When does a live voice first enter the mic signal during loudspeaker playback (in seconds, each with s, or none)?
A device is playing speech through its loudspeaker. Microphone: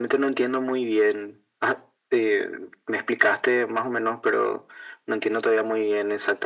none